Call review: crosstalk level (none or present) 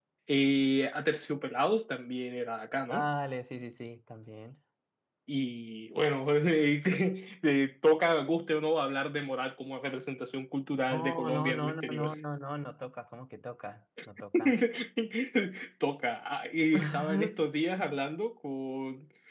present